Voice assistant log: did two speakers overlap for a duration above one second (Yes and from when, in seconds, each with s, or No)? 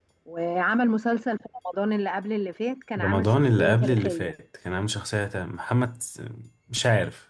Yes, from 3.0 s